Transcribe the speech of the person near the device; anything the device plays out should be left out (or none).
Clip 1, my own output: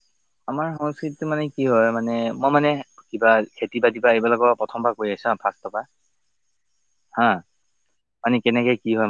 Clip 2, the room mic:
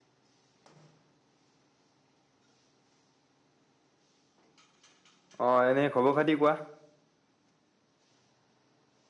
অ এনেই খবৰ খাতি কোৱা